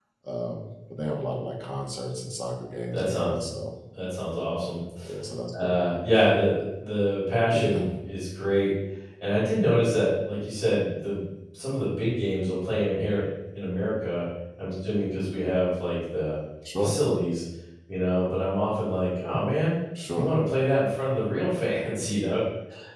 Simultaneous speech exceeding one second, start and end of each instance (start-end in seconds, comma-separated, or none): none